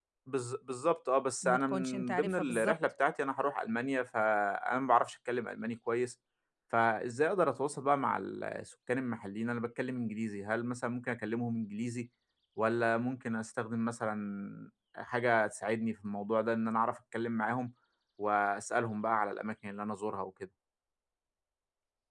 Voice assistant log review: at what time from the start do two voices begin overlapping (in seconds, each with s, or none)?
1.4 s